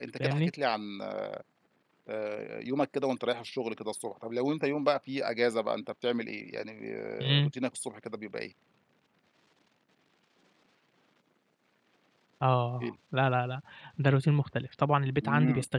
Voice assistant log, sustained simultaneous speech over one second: none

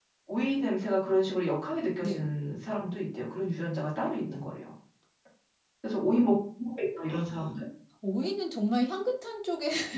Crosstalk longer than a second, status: none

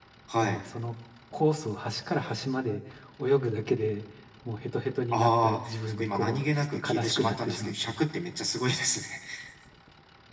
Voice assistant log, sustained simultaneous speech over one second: present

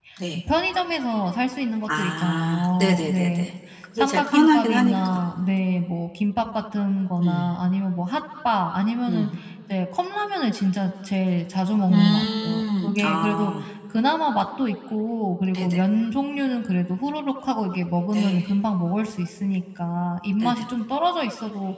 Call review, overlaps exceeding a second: present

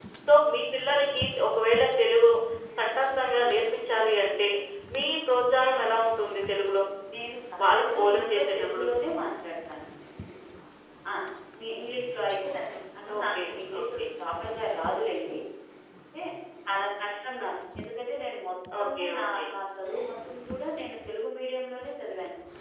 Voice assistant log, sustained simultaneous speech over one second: present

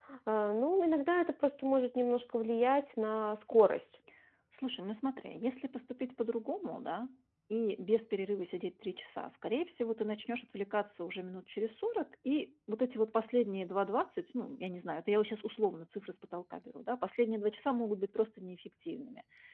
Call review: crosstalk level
none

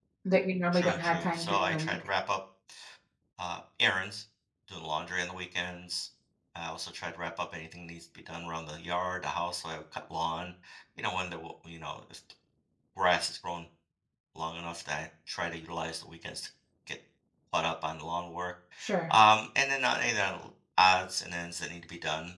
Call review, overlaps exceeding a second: present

